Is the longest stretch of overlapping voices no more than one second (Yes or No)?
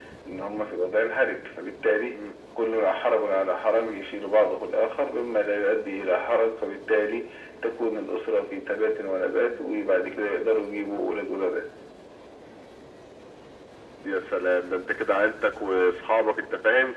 Yes